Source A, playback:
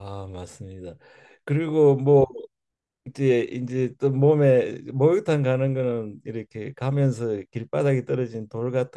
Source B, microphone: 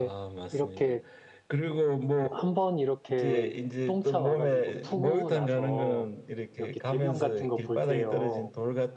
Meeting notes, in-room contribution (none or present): present